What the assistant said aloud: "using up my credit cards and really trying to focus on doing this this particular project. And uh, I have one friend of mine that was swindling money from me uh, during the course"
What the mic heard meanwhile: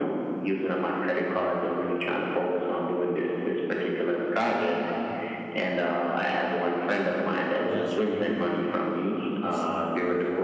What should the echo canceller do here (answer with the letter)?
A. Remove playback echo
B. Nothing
A